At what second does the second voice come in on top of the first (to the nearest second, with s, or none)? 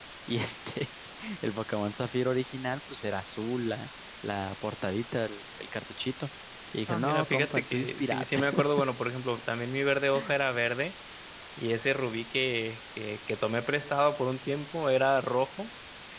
7 s